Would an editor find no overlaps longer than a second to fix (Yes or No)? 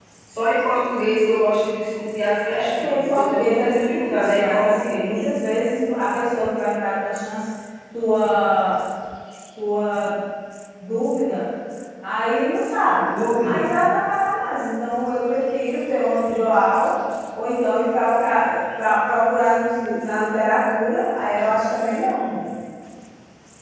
No